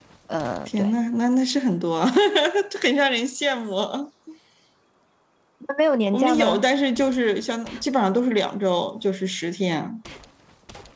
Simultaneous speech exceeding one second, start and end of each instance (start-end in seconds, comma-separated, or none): none